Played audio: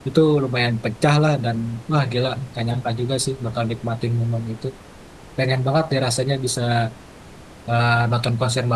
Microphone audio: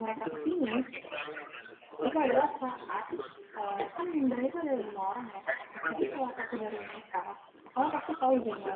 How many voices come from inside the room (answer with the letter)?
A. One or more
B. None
A